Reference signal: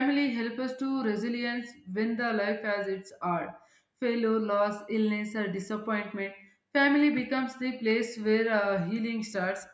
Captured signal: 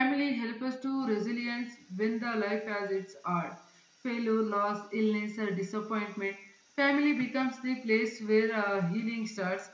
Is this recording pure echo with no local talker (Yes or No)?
Yes